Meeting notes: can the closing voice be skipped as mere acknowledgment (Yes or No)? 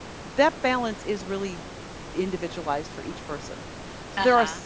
Yes